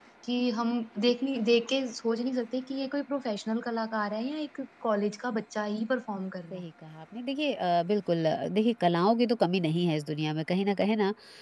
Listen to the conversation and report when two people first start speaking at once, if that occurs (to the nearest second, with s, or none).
none